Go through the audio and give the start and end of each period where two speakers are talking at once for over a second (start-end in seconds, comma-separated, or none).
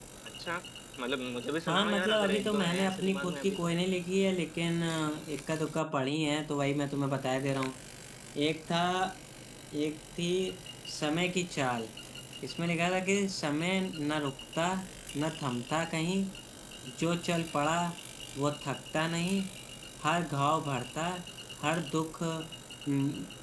1.7-3.7